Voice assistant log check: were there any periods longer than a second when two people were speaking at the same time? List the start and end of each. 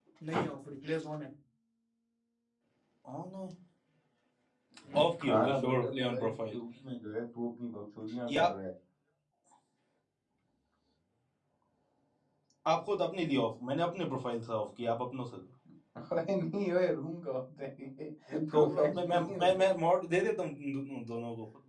5.0-6.6, 18.3-19.6

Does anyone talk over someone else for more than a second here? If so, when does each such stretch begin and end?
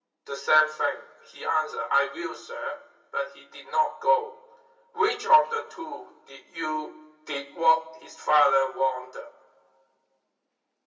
none

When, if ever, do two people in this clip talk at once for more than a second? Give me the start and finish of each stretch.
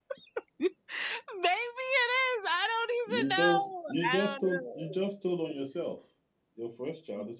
3.1-5.0

